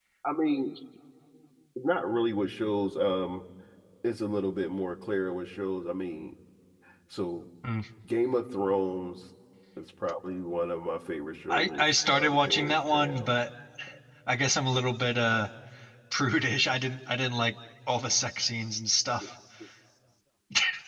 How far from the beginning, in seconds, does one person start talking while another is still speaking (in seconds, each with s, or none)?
11.5 s